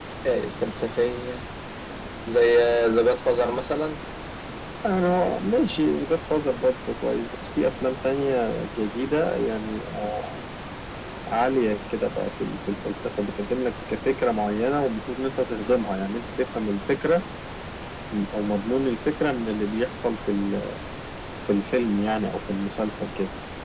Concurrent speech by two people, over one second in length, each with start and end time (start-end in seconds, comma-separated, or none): none